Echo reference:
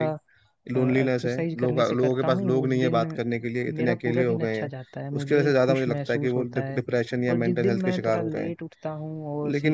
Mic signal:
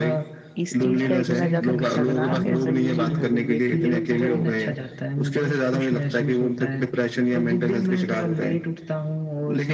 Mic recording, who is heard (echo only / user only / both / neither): both